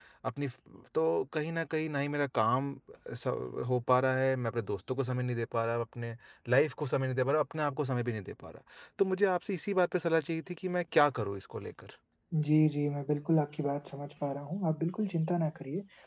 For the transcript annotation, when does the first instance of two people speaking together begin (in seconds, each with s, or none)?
none